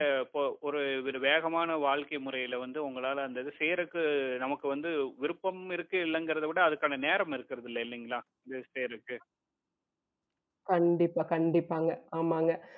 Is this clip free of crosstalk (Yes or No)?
Yes